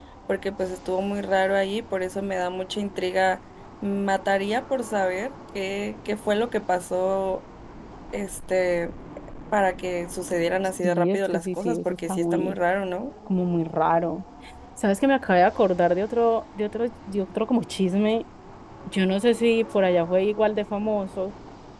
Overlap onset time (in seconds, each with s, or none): 10.8 s